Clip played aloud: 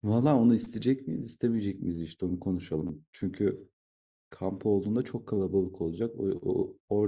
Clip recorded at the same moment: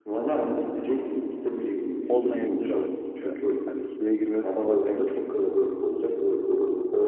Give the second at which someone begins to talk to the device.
2.1 s

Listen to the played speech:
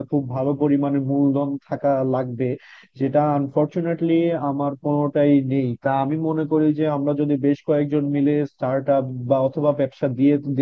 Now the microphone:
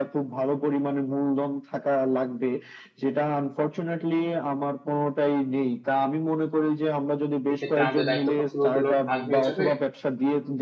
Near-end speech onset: 7.5 s

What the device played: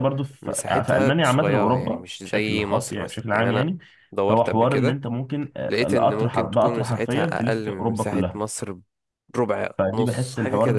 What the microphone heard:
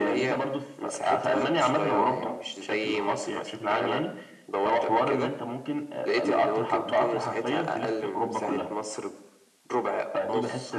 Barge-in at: none

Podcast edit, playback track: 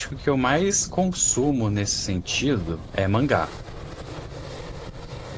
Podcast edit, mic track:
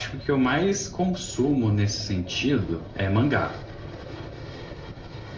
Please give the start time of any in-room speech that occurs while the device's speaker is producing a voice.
none

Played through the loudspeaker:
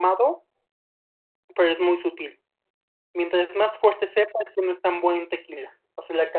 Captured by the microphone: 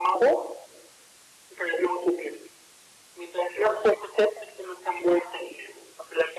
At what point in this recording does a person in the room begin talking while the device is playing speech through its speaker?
none

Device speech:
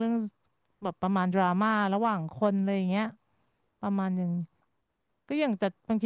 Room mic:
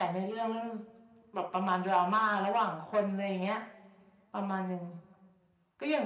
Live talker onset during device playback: none

